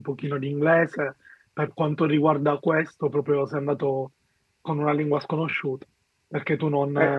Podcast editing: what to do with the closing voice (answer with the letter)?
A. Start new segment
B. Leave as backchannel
B